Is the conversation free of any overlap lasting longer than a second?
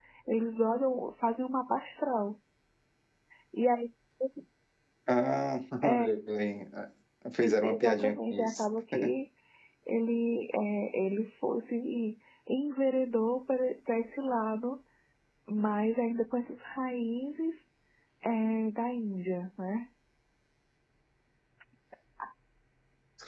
No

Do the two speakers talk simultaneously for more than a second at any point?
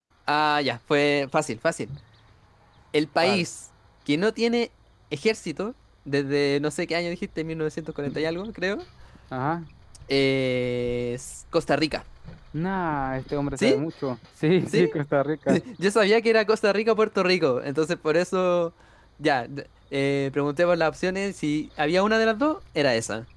No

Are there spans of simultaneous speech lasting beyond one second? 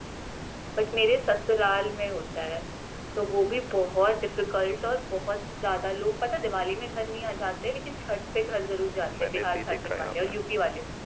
Yes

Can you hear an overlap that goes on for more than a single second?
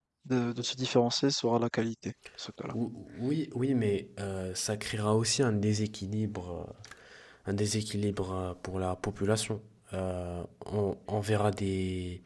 No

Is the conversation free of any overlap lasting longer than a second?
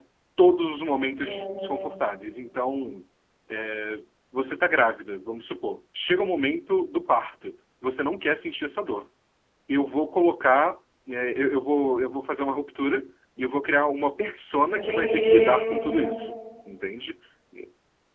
No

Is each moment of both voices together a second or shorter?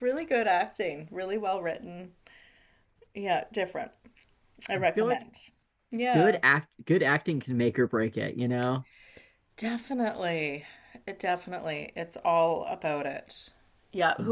Yes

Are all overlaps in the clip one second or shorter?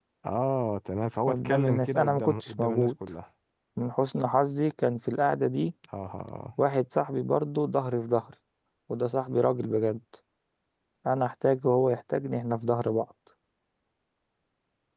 No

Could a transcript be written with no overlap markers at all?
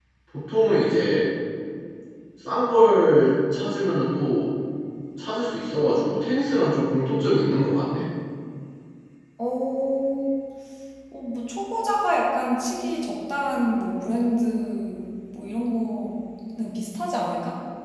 Yes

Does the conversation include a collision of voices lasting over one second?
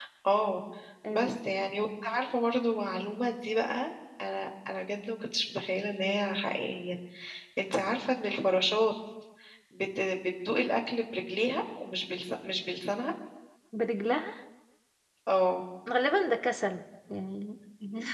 No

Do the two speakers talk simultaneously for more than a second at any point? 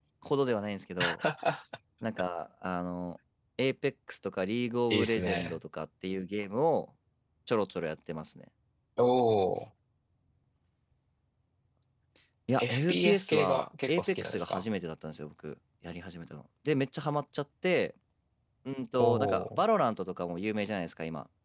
Yes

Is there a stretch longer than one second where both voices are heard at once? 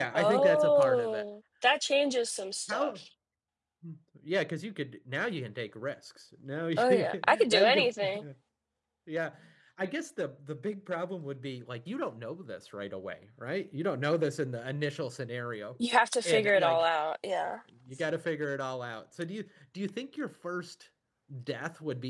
Yes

